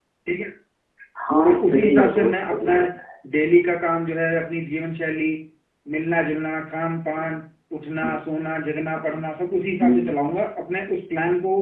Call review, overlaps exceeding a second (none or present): present